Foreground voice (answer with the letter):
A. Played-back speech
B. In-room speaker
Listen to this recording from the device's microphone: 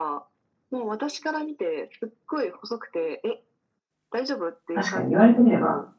B